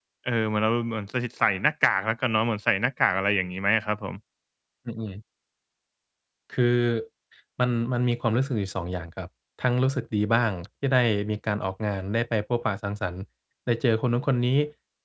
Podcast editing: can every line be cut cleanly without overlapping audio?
Yes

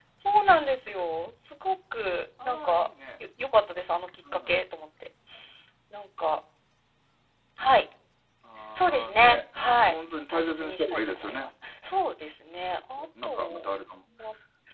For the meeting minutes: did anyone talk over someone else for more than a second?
Yes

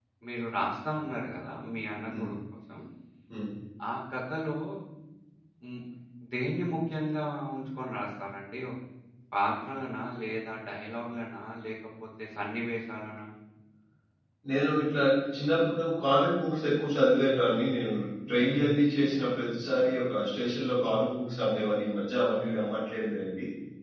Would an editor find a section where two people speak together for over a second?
No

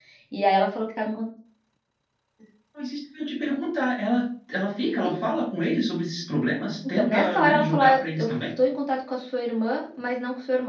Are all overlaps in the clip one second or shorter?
No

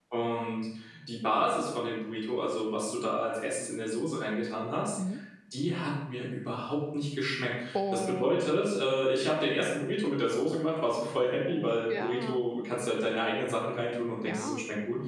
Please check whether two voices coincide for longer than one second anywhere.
Yes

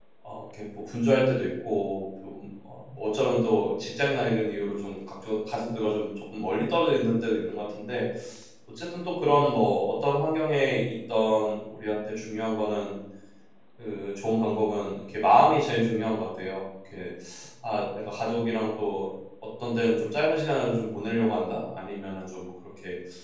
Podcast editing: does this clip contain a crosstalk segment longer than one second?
No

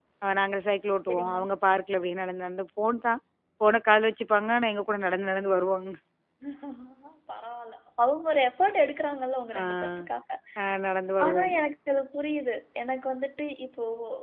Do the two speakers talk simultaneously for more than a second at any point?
No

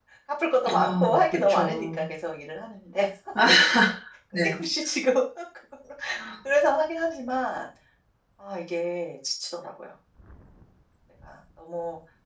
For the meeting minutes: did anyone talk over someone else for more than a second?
Yes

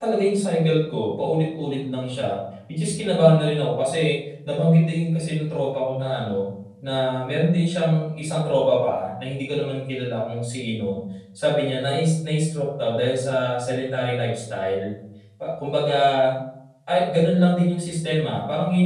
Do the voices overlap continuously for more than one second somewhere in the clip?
No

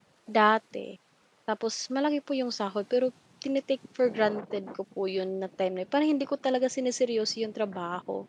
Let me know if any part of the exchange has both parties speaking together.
No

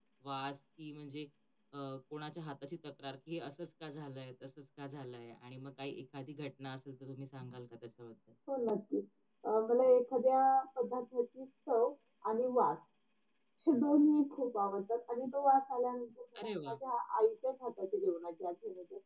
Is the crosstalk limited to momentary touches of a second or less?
Yes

